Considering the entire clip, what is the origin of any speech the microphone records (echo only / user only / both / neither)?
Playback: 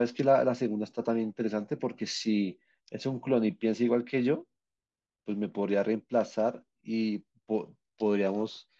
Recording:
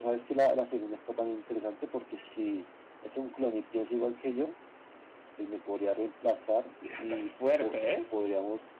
both